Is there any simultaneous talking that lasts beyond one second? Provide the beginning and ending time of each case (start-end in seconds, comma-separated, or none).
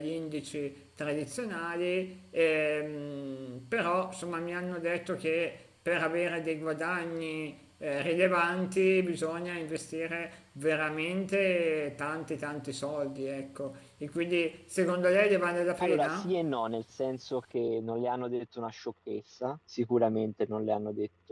none